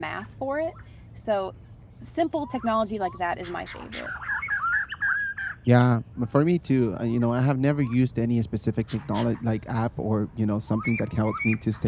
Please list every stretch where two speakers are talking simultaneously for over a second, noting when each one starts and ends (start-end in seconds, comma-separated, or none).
none